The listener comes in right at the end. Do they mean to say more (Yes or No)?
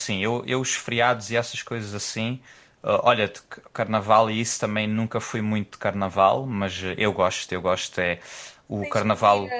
Yes